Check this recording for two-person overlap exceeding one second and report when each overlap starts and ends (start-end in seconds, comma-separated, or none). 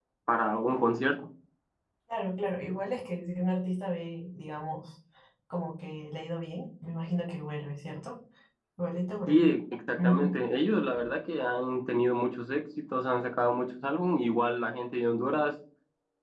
none